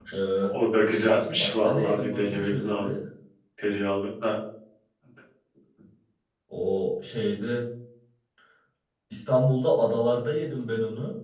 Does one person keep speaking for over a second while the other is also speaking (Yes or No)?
Yes